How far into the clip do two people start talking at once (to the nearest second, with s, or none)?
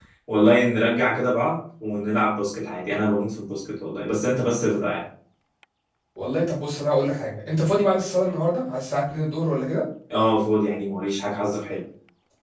none